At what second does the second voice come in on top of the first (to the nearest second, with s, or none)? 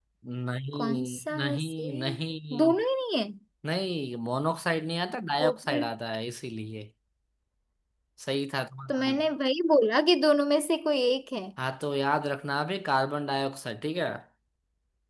1 s